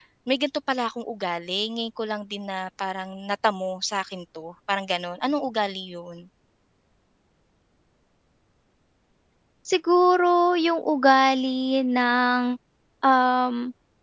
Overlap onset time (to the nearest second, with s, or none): none